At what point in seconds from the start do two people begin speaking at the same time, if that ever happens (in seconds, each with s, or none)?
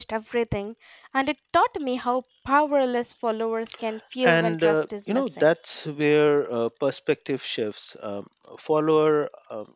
4.2 s